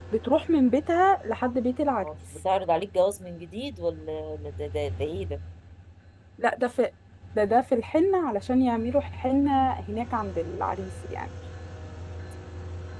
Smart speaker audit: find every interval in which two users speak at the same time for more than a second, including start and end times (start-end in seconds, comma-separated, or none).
none